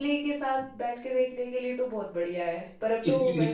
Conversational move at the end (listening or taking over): taking over